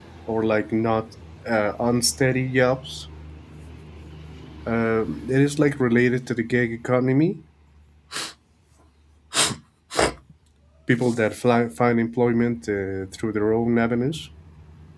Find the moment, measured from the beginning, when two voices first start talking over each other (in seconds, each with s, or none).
none